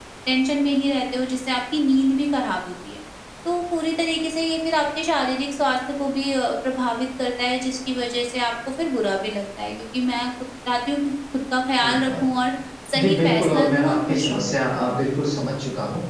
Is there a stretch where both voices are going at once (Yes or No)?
Yes